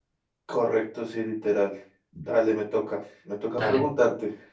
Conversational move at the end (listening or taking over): listening